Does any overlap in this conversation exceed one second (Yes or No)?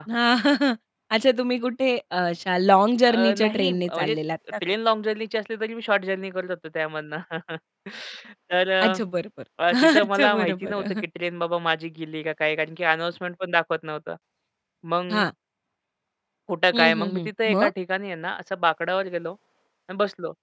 Yes